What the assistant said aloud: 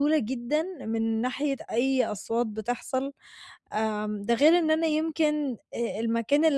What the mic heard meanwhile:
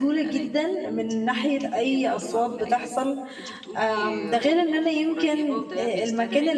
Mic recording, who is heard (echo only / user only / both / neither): both